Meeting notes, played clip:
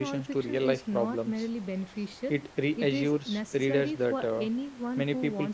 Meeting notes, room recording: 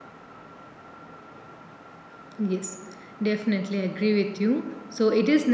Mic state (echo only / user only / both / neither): user only